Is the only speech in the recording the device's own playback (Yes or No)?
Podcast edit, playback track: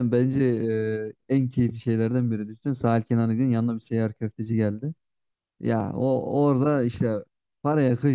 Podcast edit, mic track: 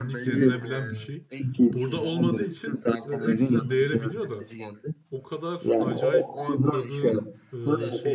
No